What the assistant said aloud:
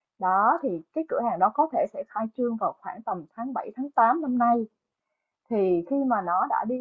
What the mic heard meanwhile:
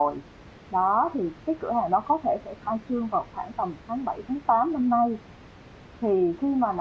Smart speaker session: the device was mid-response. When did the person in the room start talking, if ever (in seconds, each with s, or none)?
none